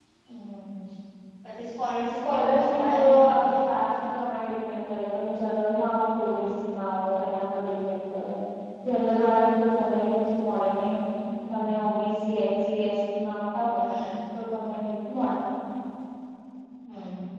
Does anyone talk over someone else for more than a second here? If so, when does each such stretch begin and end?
2.2-3.5

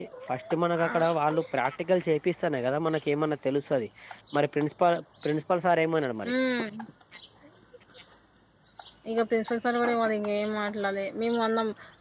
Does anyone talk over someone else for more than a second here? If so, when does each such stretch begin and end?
none

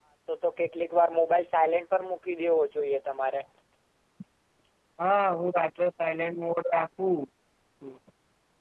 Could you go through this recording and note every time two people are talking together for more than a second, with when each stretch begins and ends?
none

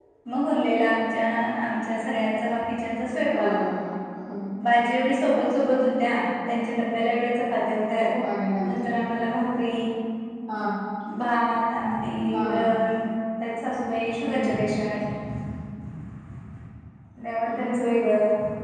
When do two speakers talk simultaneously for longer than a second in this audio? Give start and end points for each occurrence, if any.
none

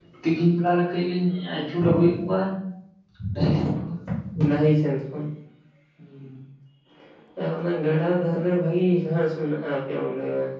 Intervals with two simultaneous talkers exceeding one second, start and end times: none

